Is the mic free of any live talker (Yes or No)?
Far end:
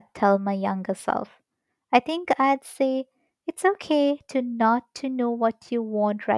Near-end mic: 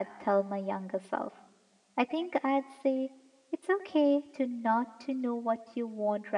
Yes